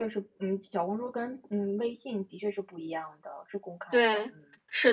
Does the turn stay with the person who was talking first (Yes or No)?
No